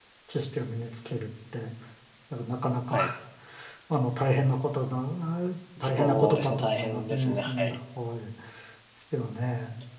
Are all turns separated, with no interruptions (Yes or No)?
No